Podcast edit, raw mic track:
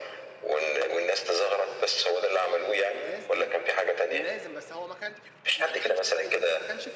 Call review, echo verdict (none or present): present